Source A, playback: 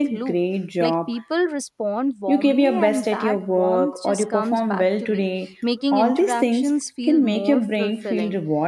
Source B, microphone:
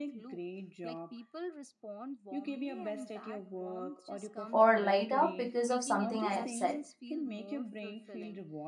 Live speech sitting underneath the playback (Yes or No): No